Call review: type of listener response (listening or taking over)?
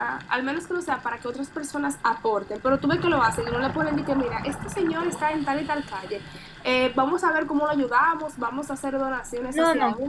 taking over